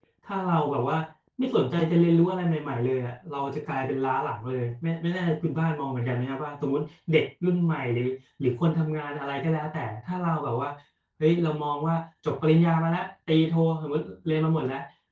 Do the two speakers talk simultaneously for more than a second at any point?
No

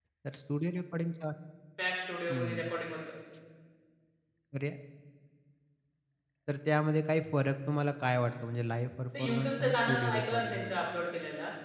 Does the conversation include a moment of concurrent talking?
Yes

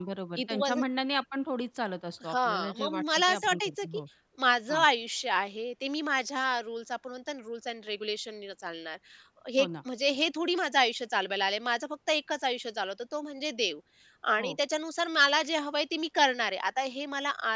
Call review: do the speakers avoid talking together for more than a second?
No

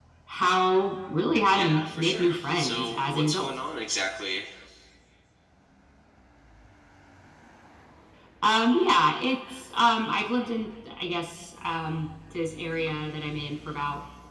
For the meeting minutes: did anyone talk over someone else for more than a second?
Yes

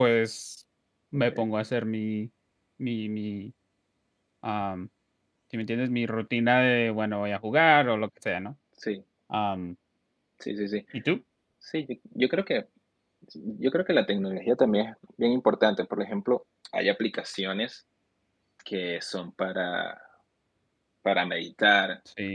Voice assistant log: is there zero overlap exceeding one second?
Yes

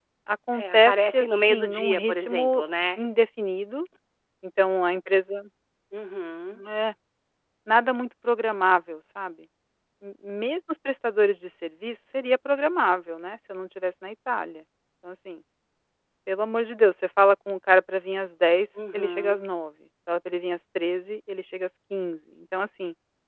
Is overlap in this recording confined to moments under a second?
No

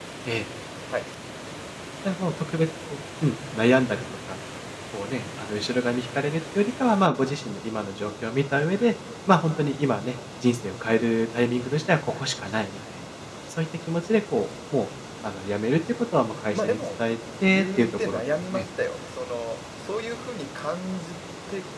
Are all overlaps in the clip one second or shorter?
No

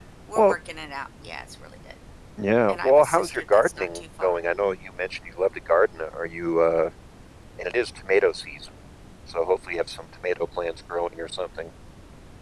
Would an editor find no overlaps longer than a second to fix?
No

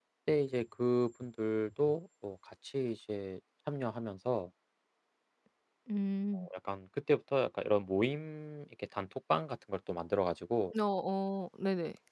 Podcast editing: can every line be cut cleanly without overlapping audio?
Yes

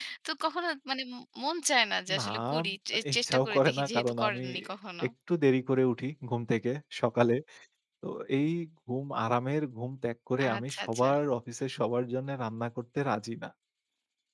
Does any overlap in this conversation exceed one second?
Yes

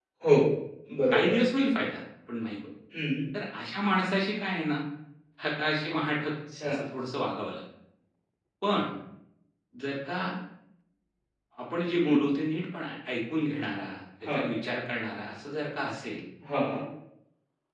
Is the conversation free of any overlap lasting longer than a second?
Yes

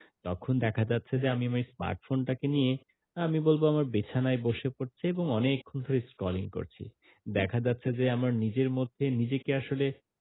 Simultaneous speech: No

